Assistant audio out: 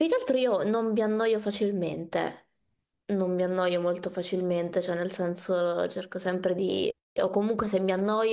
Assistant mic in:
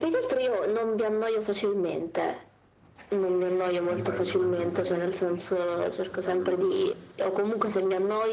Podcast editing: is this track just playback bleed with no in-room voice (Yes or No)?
No